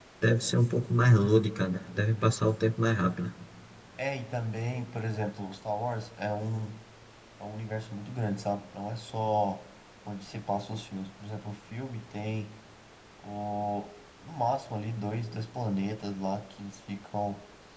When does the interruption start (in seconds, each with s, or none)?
none